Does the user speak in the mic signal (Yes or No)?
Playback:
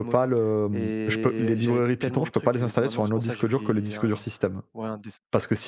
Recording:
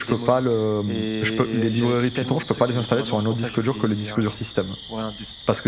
No